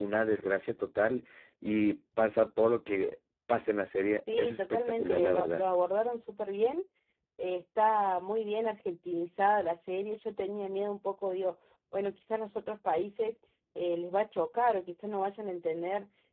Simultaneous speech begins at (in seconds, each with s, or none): 4.2 s